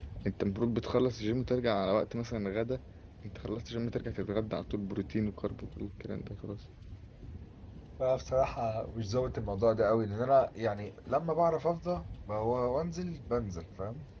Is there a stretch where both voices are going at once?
No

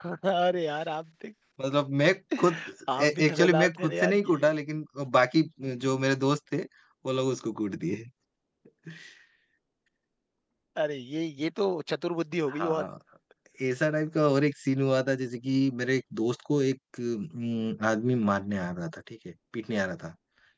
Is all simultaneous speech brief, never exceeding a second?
No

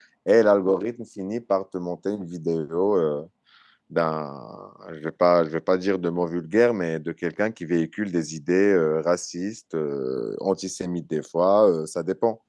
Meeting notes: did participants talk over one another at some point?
No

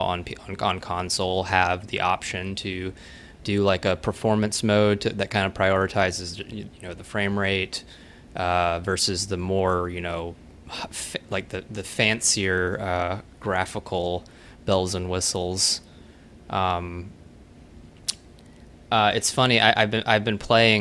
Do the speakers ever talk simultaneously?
No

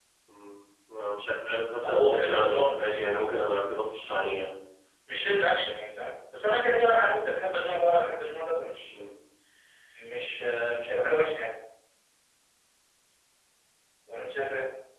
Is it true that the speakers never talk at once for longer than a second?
No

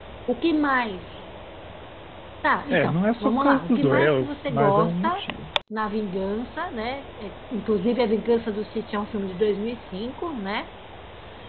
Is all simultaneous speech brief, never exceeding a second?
No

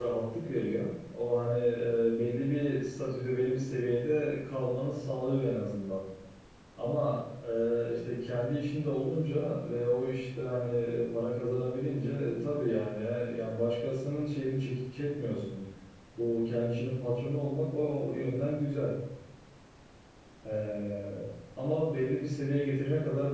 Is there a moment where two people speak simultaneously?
No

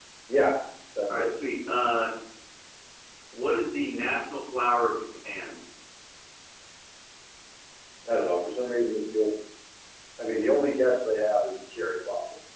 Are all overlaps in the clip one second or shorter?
Yes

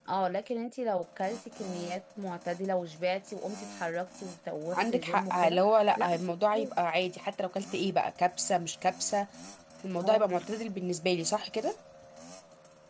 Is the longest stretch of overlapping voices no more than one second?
No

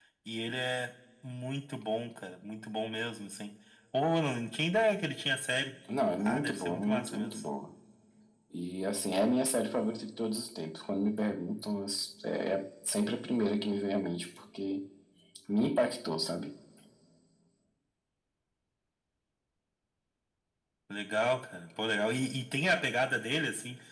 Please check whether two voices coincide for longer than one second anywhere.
Yes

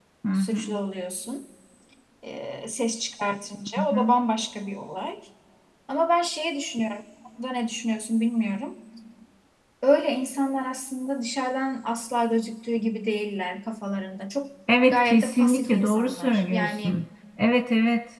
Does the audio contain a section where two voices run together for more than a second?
Yes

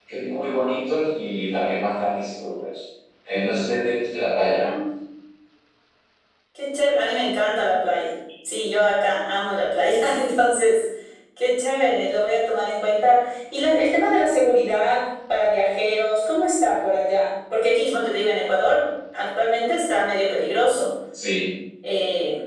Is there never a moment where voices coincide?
Yes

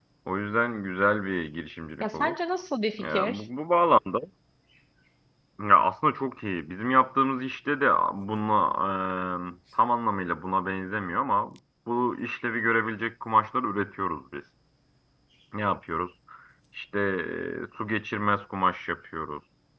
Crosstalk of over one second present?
No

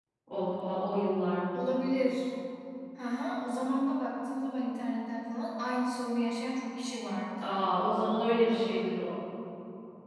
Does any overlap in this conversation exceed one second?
No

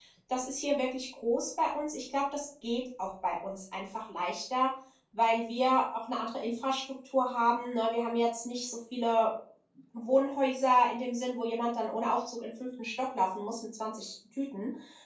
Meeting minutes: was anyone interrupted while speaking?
No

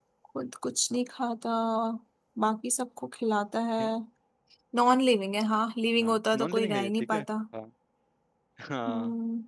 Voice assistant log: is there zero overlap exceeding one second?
No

